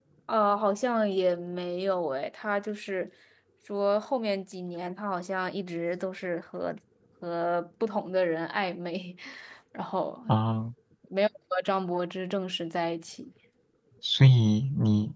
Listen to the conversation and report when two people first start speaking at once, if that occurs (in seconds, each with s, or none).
none